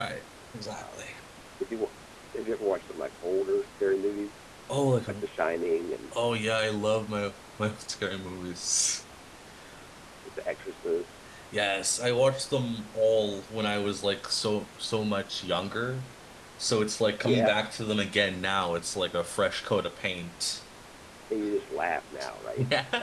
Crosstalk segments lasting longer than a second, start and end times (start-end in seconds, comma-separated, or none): none